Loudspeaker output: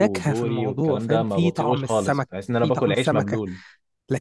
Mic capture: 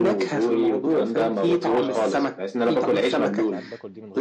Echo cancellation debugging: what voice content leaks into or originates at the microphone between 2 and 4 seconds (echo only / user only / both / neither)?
both